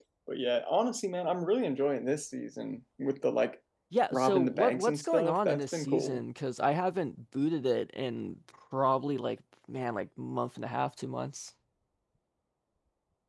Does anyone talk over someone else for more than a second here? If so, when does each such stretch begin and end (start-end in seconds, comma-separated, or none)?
4.1-6.2